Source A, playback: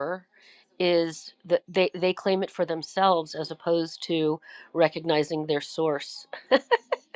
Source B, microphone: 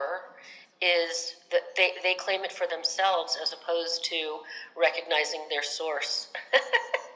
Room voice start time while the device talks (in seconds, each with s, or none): none